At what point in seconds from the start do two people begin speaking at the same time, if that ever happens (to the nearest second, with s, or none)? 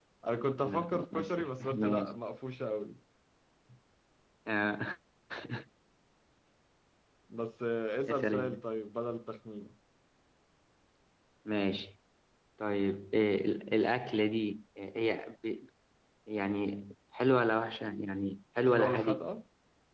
1 s